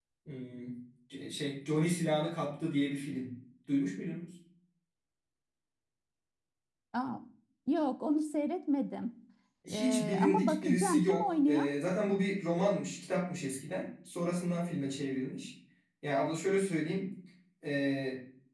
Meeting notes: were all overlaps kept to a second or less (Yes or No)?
No